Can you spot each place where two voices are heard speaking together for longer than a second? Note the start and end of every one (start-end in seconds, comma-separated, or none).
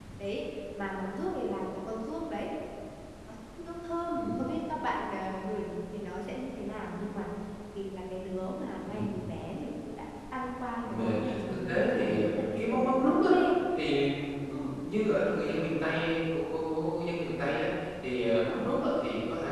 10.9-13.3